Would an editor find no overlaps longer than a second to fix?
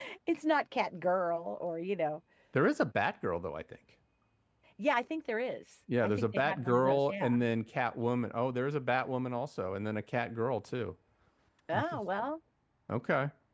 No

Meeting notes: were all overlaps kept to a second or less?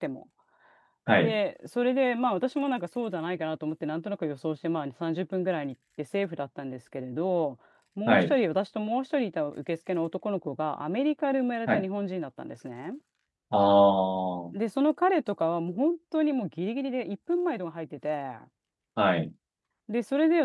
Yes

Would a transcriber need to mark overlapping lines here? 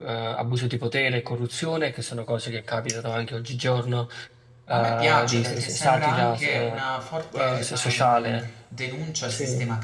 Yes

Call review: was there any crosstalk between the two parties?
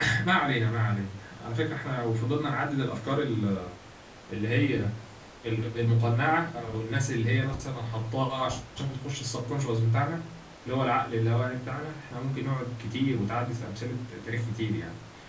No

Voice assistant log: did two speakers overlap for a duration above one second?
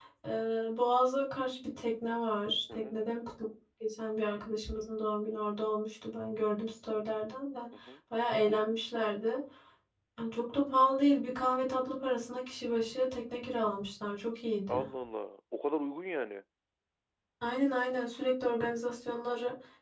No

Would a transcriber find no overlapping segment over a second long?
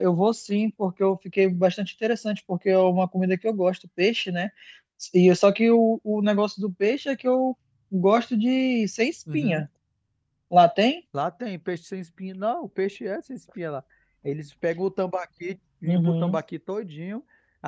Yes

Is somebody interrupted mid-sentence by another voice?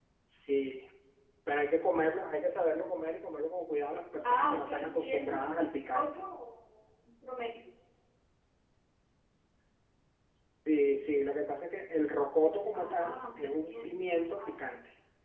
Yes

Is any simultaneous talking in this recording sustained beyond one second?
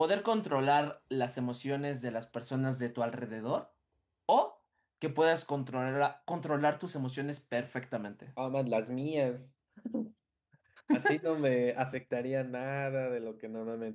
No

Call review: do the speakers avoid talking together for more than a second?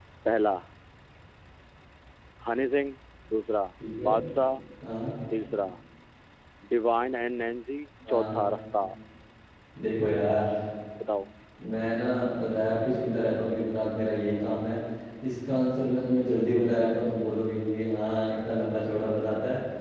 Yes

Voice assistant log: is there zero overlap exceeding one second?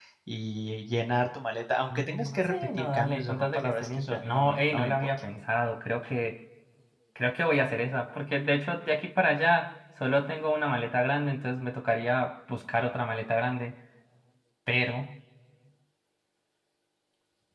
No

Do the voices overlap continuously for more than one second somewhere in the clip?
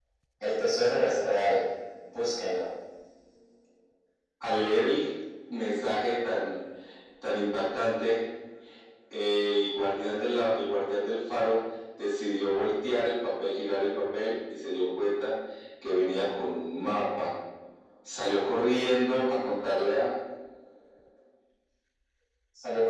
No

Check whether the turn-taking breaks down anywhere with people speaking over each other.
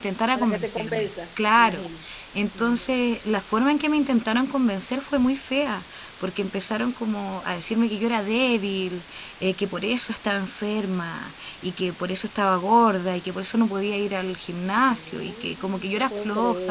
Yes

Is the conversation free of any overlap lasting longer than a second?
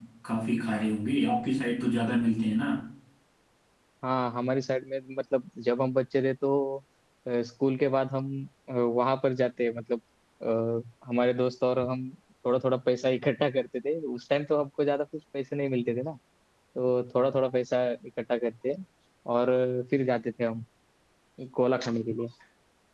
Yes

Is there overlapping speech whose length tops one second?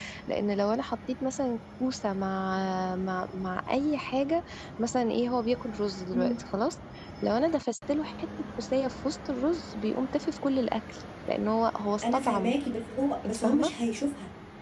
No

